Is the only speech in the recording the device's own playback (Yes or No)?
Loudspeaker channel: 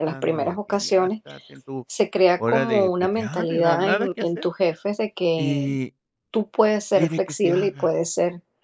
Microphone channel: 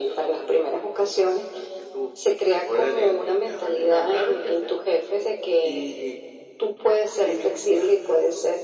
Yes